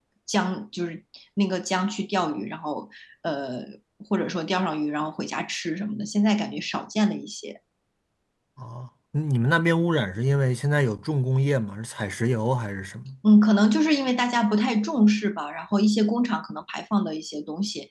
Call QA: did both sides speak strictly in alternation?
Yes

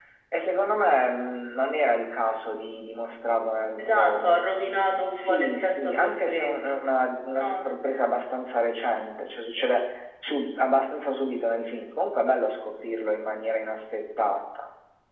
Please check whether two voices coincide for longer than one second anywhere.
Yes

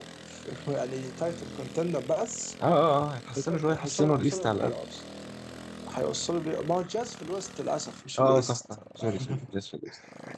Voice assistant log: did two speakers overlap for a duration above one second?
Yes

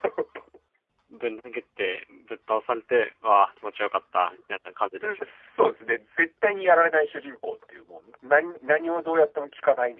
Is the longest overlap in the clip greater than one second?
No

